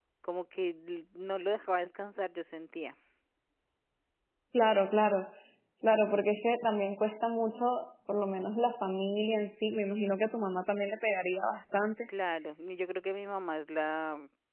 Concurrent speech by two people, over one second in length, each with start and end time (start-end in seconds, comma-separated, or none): none